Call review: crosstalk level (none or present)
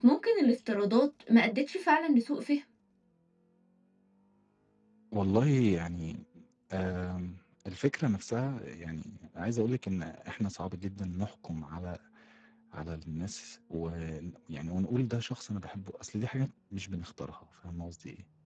none